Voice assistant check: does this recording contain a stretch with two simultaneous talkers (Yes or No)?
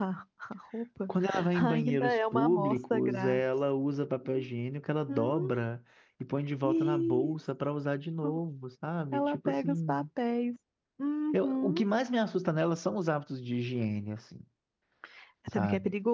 Yes